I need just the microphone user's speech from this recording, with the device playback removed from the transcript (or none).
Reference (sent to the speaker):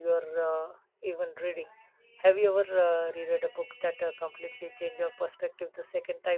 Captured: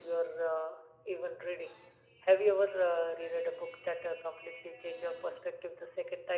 none